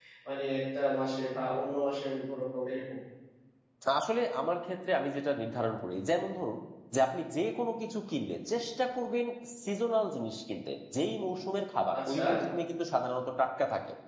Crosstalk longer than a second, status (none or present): none